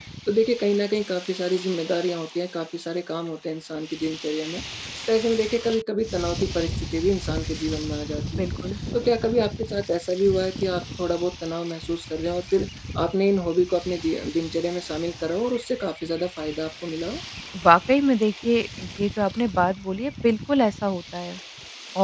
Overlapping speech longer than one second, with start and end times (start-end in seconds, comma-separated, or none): none